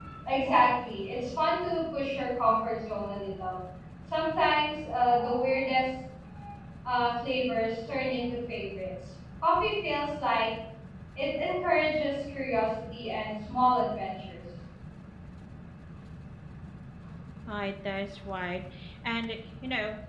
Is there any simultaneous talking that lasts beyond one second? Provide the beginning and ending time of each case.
none

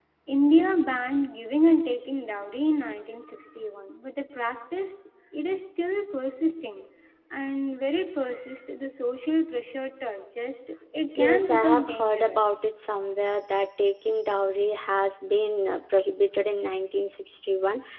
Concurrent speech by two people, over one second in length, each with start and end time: 11.2-12.6

